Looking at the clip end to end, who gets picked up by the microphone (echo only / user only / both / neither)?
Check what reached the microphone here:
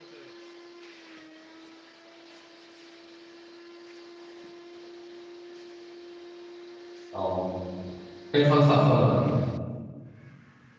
user only